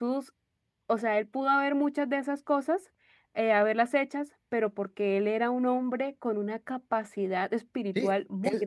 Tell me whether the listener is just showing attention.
No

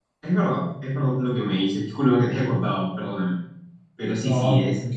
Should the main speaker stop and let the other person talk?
No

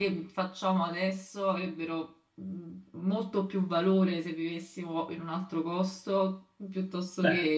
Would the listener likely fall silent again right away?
No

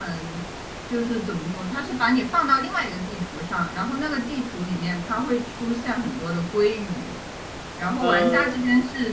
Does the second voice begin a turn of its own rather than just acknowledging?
No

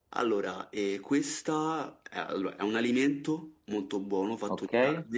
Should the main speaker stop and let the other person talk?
No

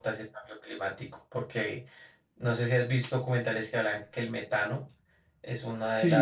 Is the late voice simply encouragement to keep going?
No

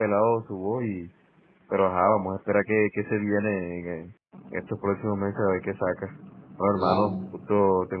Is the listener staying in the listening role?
Yes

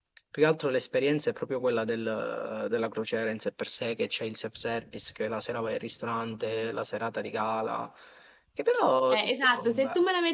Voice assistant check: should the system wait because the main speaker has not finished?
No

